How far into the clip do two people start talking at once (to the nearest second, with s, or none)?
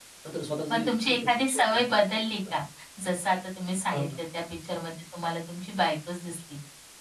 1 s